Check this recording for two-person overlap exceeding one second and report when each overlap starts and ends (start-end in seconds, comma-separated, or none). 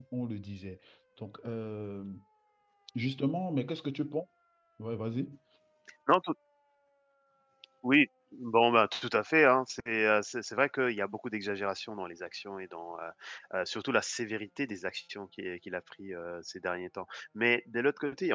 none